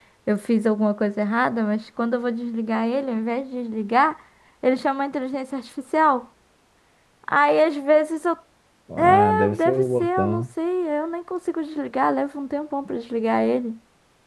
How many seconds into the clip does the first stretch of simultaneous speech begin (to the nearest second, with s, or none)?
9 s